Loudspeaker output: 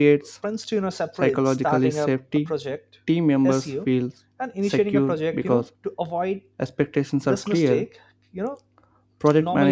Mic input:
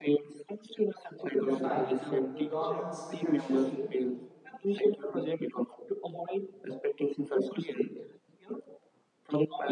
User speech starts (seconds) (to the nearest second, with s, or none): 1 s